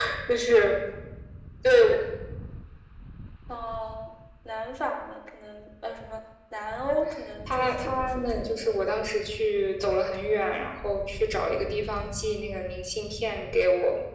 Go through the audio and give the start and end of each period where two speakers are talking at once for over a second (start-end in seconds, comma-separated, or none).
7.5-8.7